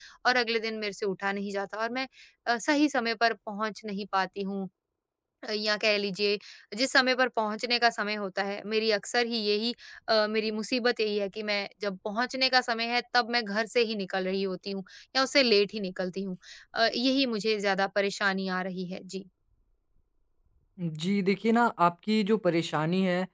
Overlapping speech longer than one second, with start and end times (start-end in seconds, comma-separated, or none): none